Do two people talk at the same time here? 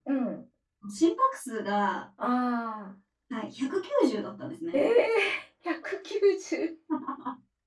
No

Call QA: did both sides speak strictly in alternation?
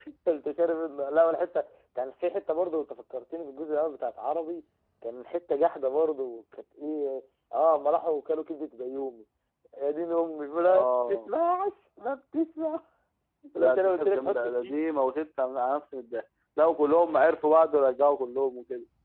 No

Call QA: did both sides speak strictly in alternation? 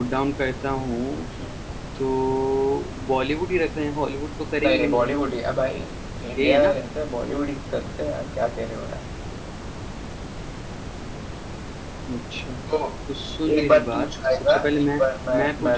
No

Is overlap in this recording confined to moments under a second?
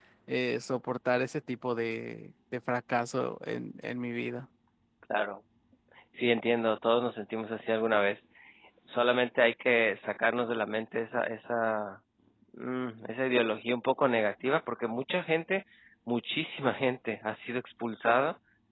Yes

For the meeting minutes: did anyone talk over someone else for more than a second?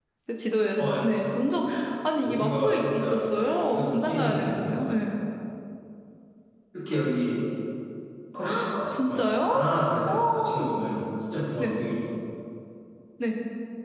Yes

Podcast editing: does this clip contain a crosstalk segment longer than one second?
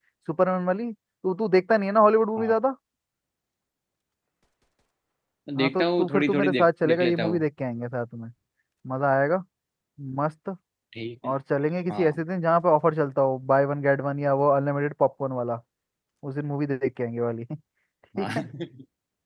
Yes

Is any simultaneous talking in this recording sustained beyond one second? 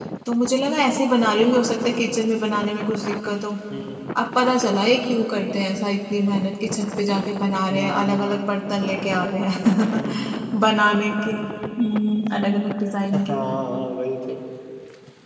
No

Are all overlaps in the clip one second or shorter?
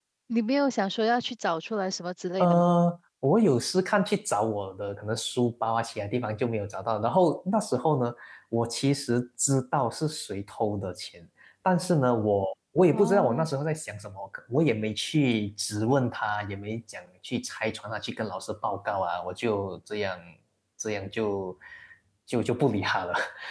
Yes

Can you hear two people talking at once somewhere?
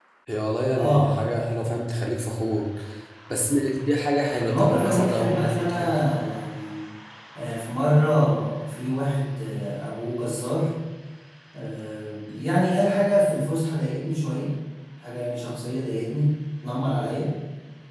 Yes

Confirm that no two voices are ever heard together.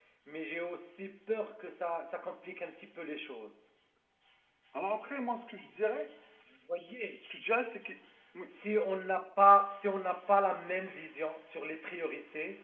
Yes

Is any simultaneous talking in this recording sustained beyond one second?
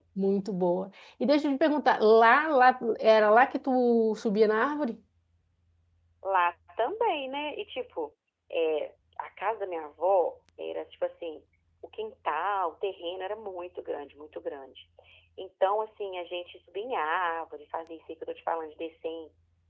No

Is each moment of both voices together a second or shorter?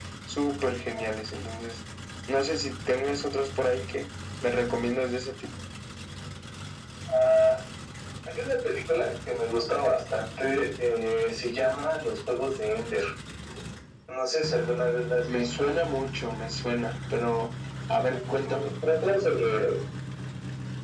Yes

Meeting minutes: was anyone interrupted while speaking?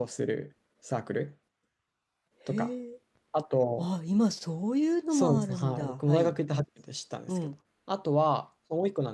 Yes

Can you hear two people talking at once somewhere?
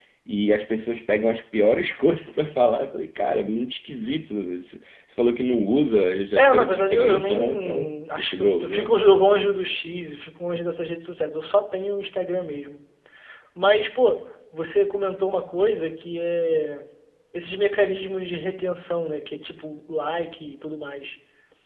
Yes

